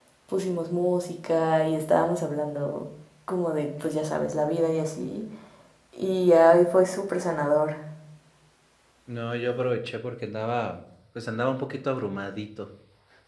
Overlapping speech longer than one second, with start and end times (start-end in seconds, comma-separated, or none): none